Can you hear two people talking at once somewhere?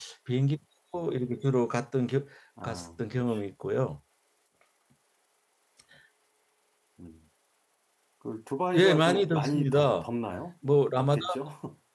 Yes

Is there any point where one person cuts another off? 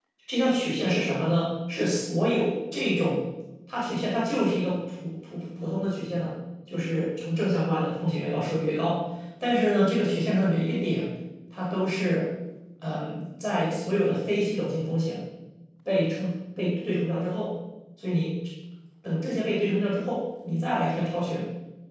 No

